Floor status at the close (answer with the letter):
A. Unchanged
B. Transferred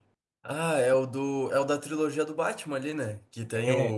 A